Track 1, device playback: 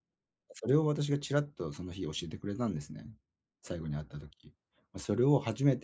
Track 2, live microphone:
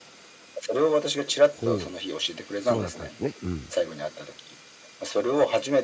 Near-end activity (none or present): present